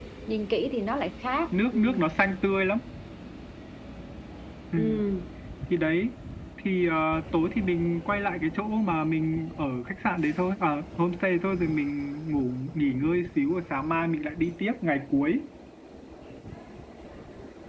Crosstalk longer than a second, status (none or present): none